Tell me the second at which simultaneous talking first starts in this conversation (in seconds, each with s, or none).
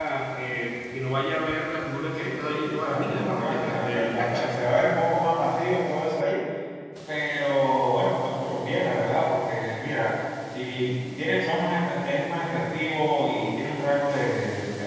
2.1 s